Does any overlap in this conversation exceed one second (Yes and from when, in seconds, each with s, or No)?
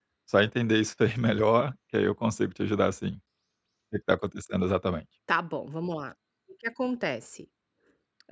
No